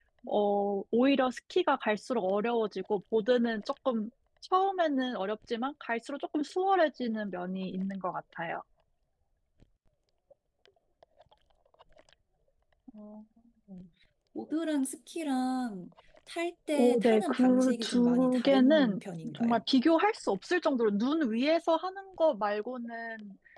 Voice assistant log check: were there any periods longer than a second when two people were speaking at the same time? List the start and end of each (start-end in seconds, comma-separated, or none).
16.8-19.6